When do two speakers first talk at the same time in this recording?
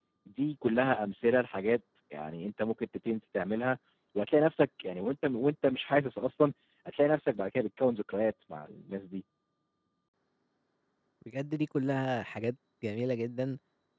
none

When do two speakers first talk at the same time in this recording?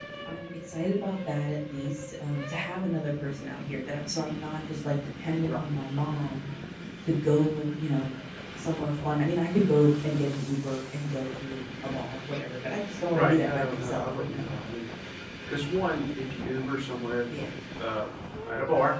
13.1 s

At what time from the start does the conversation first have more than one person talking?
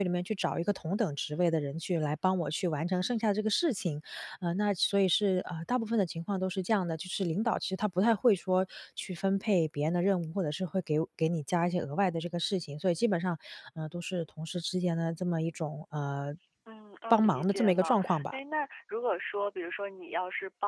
17.1 s

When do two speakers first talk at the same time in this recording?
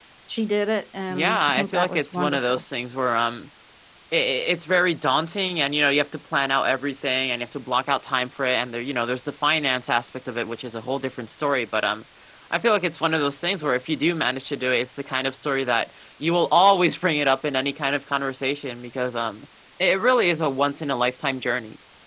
1.1 s

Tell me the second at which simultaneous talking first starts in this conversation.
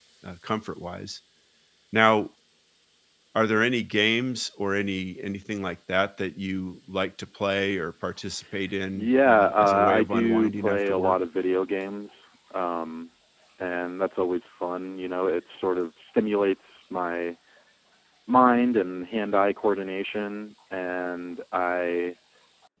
8.9 s

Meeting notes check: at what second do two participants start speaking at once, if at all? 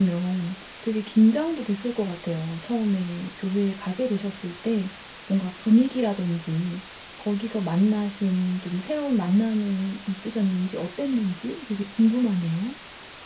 none

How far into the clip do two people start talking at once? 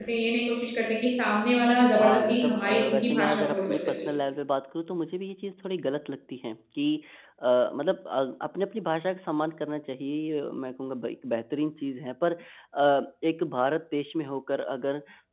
1.9 s

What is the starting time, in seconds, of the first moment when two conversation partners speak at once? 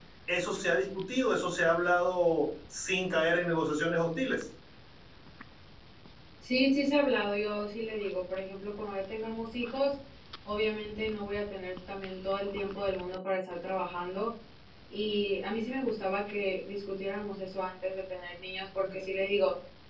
none

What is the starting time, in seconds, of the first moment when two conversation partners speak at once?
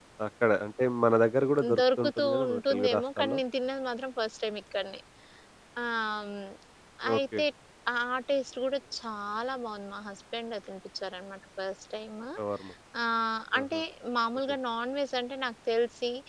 1.8 s

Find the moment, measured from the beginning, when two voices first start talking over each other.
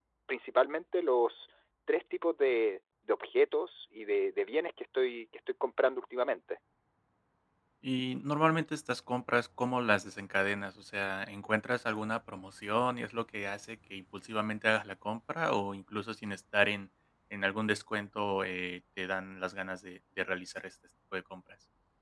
none

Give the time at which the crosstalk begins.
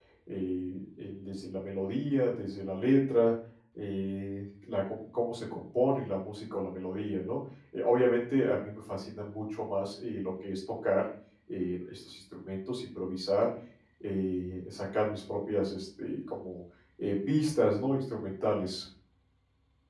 none

